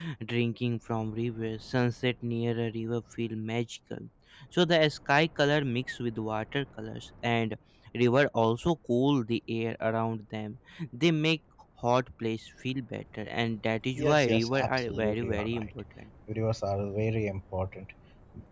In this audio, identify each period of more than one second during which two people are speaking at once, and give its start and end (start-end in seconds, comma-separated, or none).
14.0-15.7